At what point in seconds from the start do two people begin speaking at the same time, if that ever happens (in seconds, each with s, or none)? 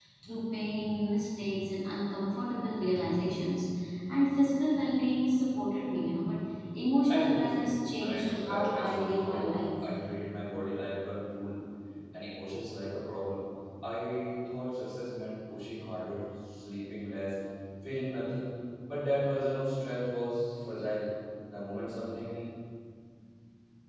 7.1 s